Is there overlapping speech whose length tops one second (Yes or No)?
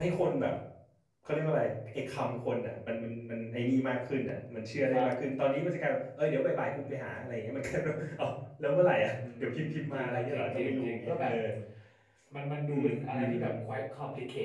Yes